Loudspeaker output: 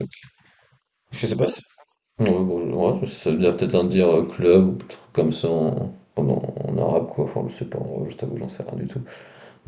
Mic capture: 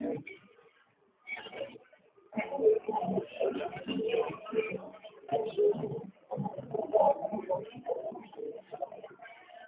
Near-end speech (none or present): none